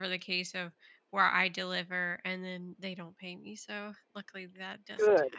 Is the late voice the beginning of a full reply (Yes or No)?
Yes